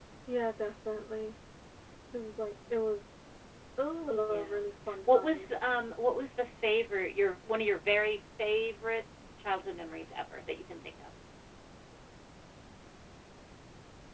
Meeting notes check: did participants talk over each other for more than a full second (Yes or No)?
No